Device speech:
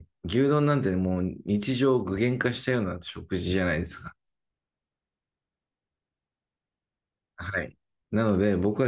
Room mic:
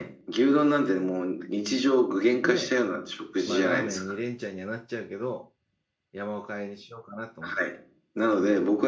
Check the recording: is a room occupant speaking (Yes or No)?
Yes